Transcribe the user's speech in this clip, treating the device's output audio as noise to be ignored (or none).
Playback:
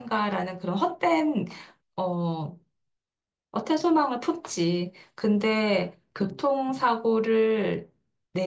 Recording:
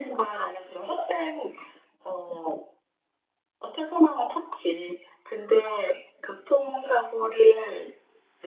none